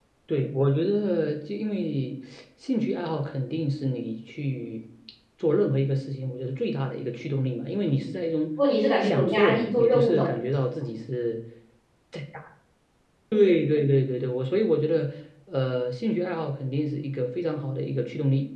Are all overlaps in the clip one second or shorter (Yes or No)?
No